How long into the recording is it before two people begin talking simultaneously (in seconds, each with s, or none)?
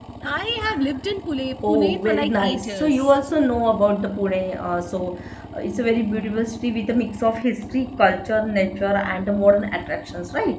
1.7 s